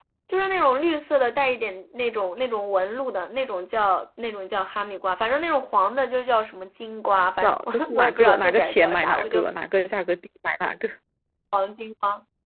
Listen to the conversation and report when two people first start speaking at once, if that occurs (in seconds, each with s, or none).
7.4 s